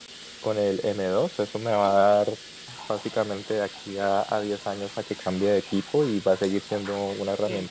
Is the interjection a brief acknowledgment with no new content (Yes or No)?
Yes